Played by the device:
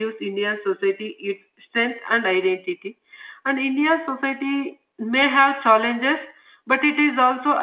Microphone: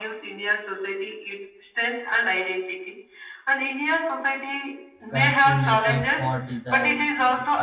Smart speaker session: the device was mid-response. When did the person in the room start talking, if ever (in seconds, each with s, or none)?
5.1 s